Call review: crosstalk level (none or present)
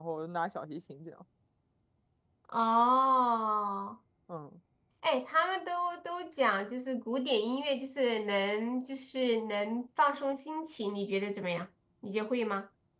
none